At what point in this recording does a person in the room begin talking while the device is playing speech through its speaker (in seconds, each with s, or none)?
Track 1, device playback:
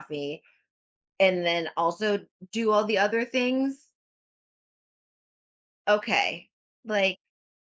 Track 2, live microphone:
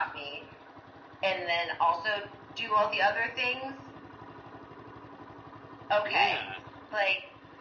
6.0 s